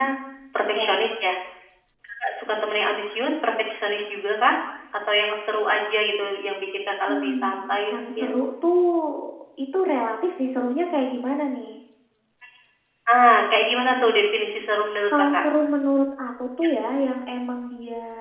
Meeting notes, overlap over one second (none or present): present